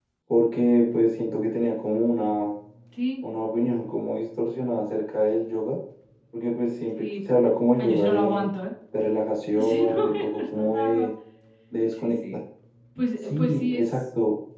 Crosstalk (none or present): present